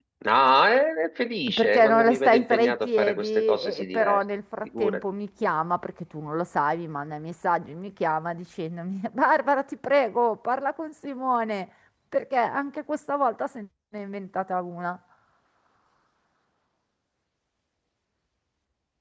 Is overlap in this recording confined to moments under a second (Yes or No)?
No